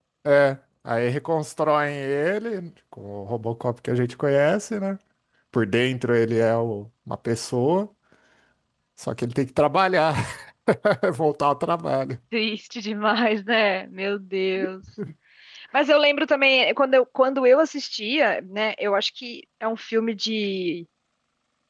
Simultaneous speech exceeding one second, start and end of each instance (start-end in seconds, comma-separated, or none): none